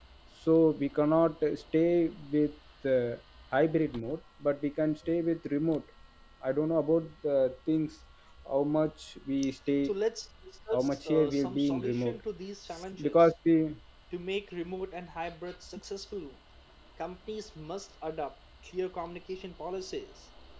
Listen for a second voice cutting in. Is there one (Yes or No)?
Yes